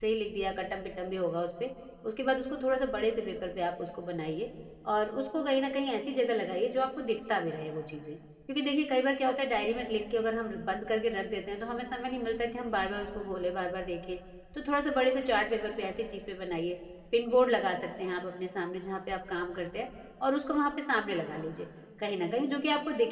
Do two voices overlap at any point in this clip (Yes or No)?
No